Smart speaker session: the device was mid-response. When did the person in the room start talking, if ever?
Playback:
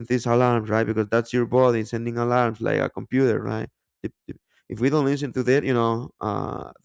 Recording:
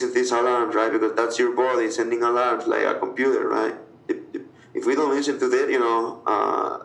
none

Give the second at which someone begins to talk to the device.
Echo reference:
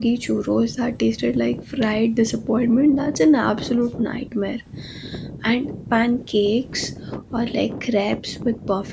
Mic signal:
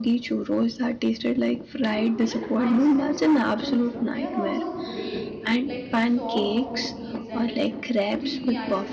1.8 s

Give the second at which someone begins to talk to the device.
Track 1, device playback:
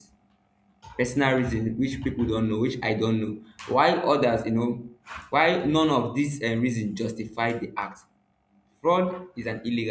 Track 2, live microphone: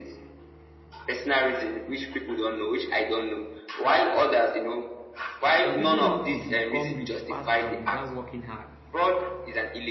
5.5 s

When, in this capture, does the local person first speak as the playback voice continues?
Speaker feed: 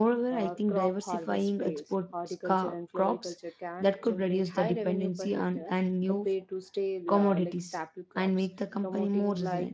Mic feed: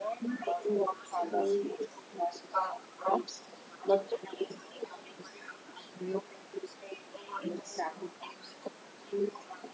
none

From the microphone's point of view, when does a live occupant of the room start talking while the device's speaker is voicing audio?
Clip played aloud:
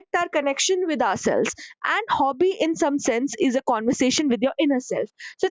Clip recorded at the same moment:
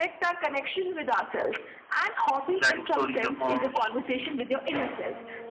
2.6 s

